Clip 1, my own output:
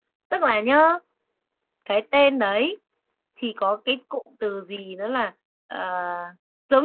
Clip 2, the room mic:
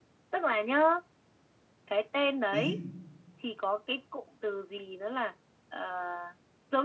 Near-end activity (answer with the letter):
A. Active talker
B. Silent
A